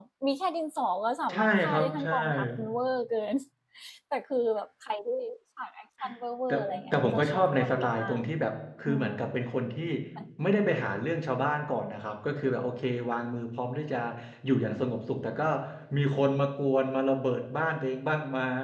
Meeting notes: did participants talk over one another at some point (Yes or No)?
Yes